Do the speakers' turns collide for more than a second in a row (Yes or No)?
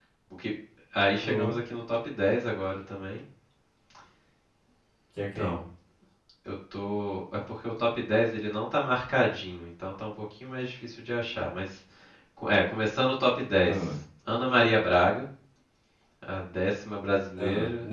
No